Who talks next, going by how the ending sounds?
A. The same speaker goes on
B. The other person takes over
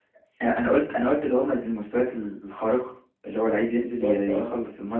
A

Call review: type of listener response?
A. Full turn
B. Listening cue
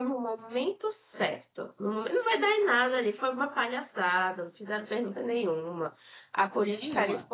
B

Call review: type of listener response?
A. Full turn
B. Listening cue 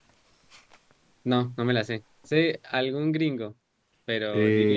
A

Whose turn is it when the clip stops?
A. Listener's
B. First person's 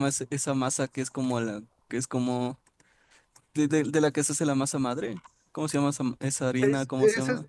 A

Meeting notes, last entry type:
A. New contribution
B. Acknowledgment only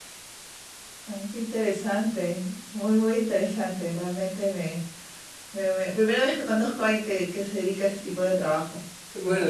A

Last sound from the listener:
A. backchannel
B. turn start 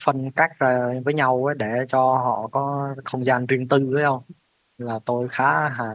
A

